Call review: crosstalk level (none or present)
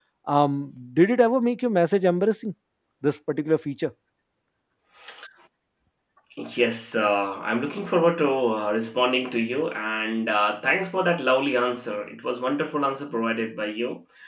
none